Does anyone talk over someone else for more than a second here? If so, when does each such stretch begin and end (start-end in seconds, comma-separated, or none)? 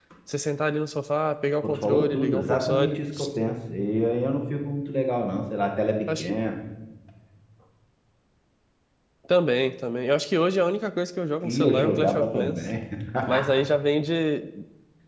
1.6-3.0, 11.4-12.7